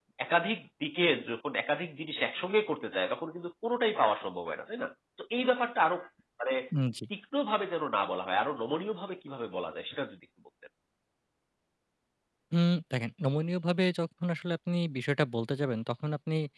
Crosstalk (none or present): none